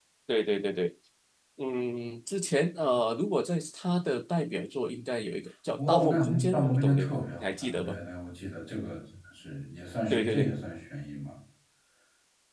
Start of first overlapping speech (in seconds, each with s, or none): 5.8 s